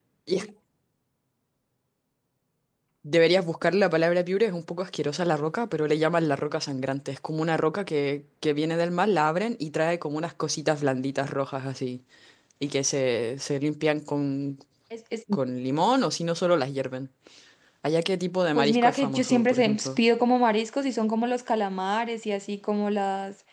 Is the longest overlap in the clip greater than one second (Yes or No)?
Yes